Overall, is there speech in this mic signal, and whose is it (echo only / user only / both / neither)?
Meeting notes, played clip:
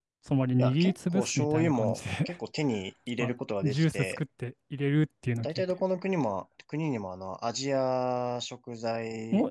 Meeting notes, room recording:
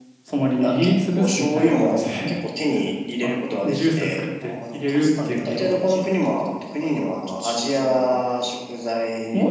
both